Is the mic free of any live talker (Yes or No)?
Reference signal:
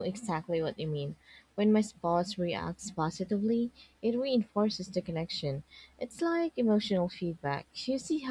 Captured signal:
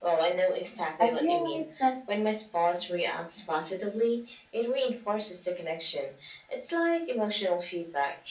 No